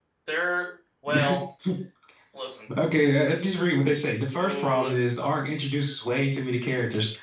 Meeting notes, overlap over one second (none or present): none